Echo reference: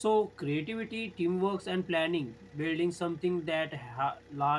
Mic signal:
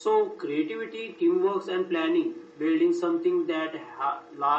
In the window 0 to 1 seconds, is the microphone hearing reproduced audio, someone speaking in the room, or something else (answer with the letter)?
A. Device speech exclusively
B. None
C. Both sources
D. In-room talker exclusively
A